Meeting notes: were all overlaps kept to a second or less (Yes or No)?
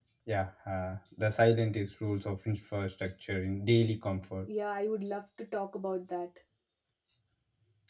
Yes